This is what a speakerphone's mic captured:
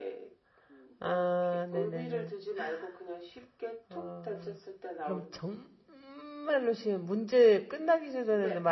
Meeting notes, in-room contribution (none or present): present